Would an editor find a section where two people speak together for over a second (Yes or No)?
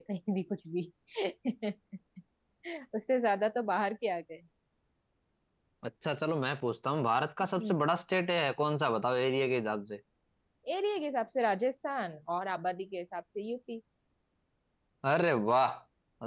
No